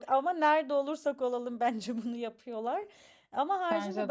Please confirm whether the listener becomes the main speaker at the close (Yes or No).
No